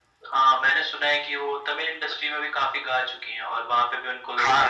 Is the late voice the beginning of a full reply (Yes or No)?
Yes